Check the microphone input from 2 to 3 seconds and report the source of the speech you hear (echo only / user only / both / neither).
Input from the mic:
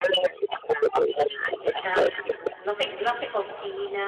both